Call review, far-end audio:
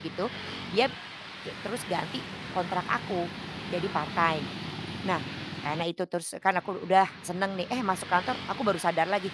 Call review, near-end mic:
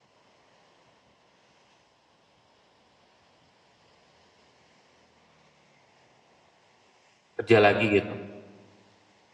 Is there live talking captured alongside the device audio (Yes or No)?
Yes